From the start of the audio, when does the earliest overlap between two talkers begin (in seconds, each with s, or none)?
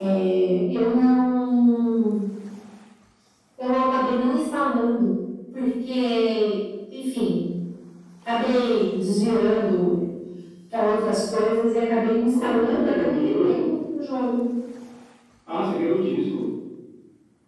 12.3 s